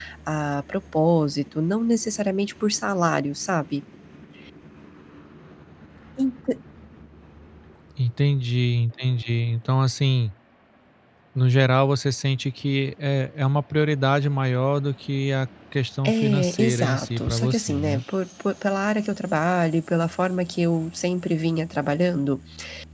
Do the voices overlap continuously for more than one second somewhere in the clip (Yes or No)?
Yes